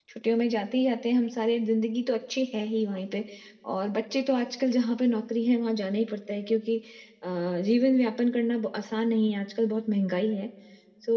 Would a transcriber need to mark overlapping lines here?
No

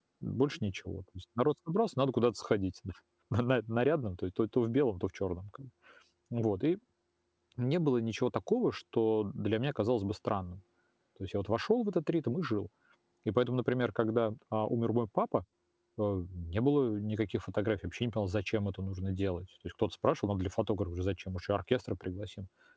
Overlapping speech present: No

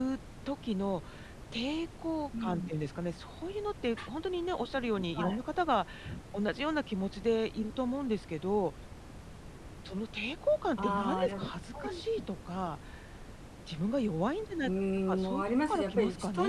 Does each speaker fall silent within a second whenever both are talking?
No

